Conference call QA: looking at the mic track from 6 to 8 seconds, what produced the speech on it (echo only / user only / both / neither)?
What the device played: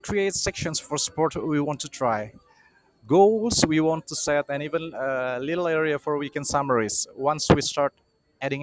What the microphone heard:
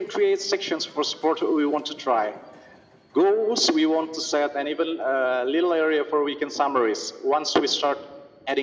echo only